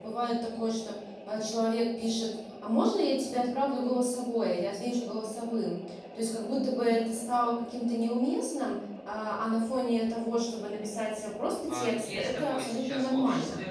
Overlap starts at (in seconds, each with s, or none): 11.7 s